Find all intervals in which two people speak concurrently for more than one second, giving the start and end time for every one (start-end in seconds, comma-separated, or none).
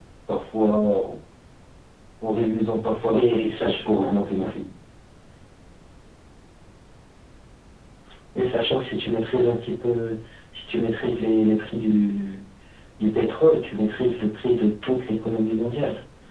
3.1-4.5